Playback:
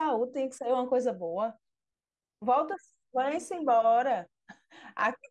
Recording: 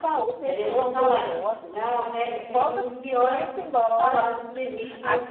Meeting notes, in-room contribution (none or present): present